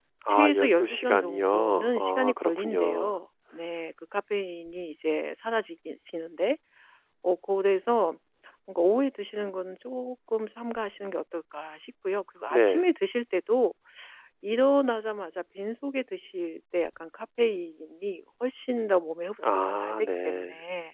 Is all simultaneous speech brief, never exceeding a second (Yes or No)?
No